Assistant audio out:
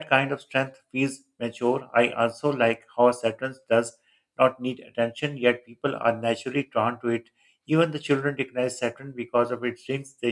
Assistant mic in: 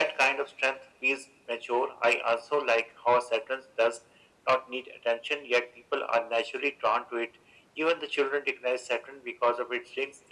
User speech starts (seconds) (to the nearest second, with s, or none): none